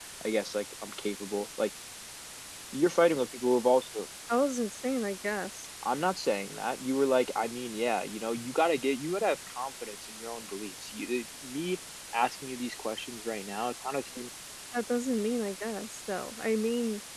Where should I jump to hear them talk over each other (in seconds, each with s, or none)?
none